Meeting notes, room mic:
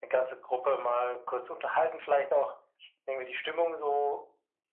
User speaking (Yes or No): No